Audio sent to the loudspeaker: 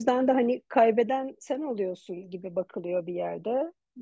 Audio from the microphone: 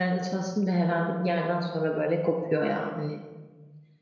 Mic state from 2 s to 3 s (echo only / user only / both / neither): user only